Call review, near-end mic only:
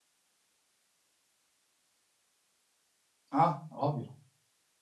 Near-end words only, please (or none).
Ah, ovvio,